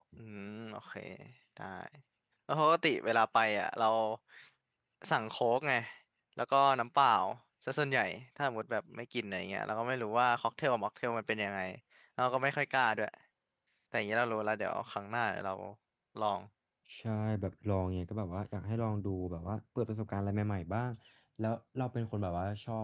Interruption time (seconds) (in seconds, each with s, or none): none